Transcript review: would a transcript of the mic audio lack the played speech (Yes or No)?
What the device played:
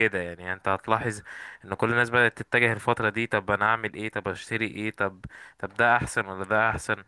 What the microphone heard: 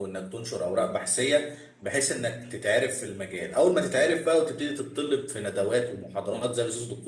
Yes